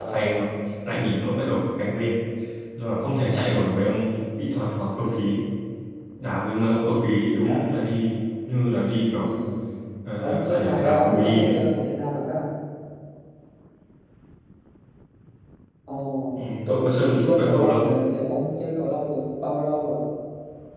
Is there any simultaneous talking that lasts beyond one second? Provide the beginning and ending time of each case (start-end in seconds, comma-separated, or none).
10.2-11.5, 16.6-17.9